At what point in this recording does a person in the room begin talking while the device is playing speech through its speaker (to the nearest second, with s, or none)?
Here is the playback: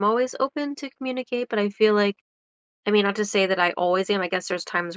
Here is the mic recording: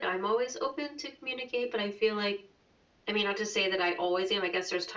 none